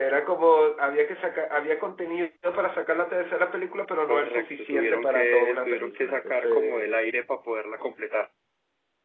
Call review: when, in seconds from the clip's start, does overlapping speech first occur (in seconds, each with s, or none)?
4.1 s